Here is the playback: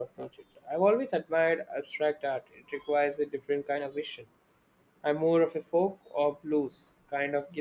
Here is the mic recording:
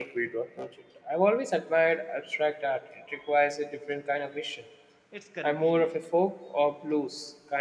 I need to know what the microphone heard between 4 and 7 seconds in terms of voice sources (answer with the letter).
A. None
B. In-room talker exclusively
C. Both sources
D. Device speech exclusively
C